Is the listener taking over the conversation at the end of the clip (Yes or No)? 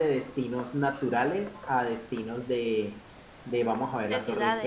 No